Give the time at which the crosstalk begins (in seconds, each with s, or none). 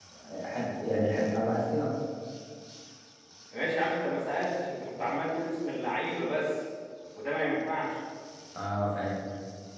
none